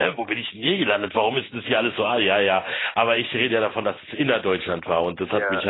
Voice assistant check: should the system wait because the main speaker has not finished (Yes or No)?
Yes